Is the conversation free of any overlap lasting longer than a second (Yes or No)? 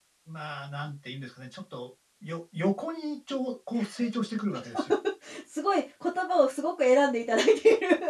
Yes